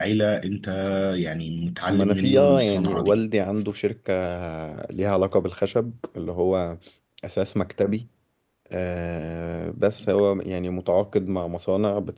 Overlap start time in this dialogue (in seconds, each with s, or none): 1.9 s